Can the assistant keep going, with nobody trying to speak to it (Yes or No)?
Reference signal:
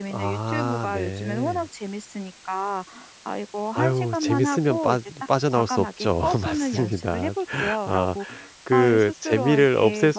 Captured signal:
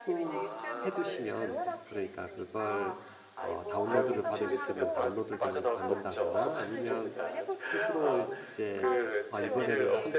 No